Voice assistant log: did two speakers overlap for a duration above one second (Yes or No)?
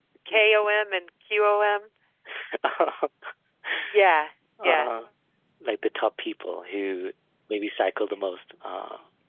No